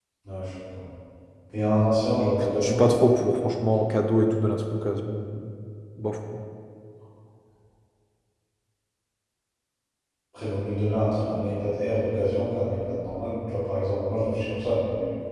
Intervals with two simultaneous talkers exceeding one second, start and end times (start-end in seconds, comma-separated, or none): none